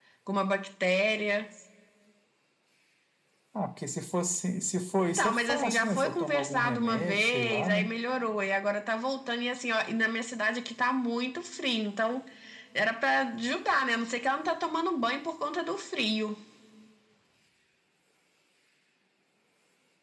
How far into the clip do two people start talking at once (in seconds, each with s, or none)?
5.0 s